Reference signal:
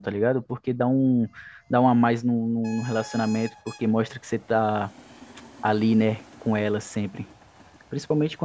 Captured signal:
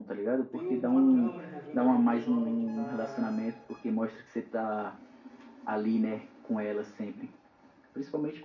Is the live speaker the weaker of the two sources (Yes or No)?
Yes